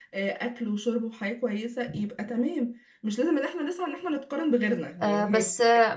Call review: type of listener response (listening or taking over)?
taking over